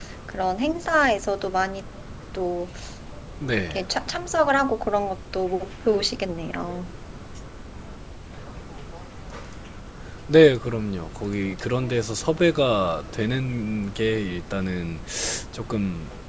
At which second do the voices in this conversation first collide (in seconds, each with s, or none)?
none